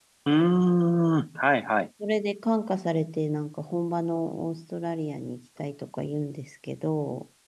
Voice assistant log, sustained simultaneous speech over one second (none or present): none